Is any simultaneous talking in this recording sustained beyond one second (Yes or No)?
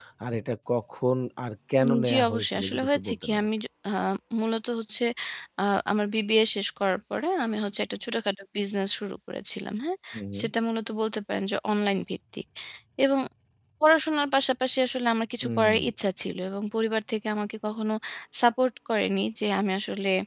Yes